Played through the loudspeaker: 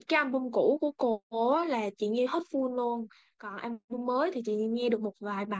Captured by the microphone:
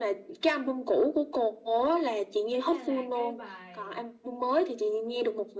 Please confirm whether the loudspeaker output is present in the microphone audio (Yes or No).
Yes